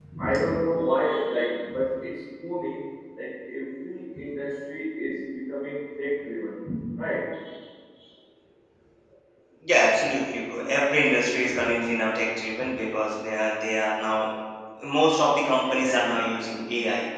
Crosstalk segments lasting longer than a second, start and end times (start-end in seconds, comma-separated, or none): none